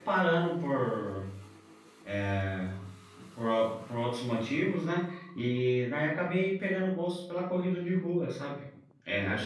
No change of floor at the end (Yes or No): Yes